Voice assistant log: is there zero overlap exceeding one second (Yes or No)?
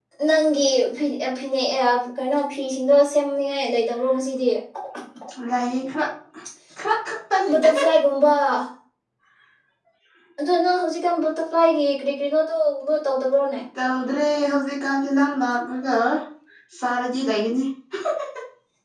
Yes